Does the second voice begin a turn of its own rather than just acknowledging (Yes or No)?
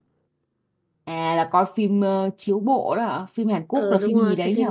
Yes